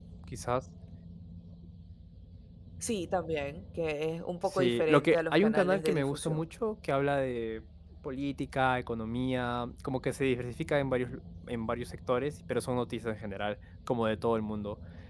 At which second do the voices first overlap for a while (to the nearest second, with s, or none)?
4 s